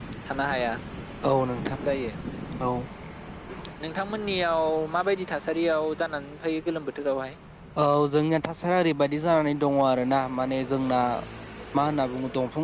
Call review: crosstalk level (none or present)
none